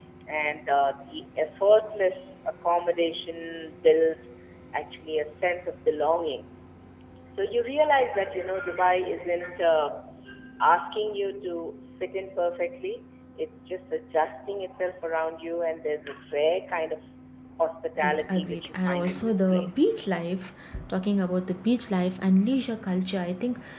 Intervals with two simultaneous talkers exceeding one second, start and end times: 18.0-19.9

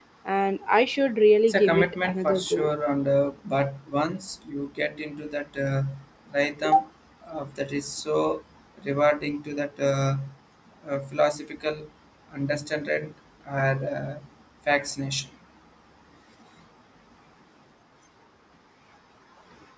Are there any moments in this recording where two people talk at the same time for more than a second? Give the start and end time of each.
1.5-2.7

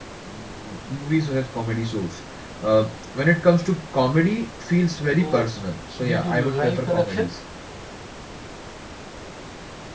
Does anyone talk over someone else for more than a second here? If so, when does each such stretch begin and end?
6.0-7.3

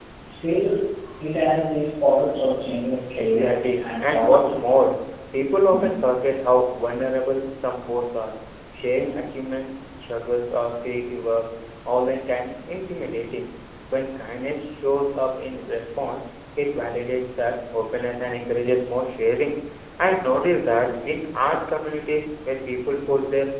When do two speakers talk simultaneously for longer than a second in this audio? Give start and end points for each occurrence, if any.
3.2-4.7

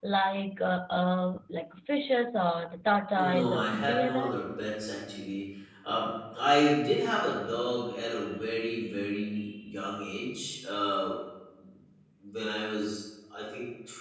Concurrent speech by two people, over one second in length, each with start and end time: 3.1-4.4

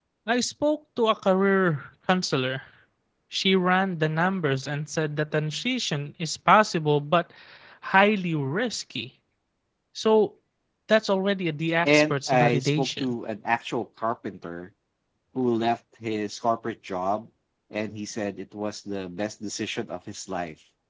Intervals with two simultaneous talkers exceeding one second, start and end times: 11.9-13.1

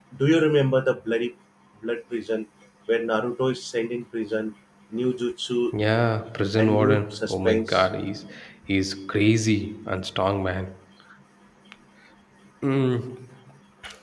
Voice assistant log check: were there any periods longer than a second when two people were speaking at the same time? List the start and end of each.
6.6-7.8

